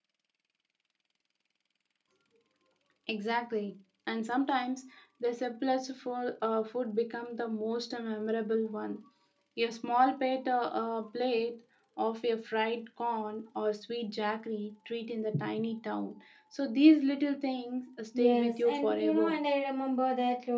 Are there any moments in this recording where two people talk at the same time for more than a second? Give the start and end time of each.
18.2-19.4

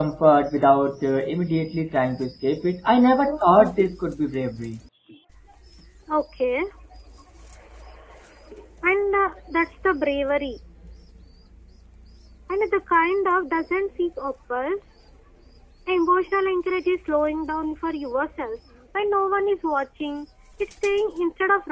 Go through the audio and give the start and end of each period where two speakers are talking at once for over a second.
none

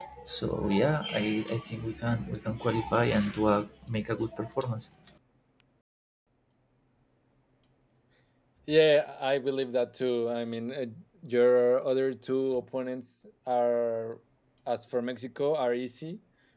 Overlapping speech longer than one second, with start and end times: none

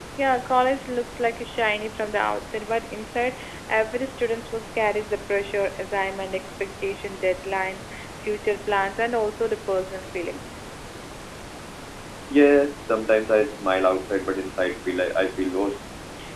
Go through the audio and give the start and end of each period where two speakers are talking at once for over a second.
none

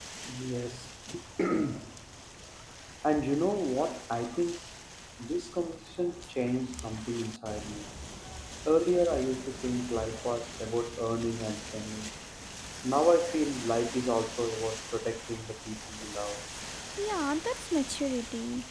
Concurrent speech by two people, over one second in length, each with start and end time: none

